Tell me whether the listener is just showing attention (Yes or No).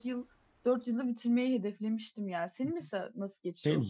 No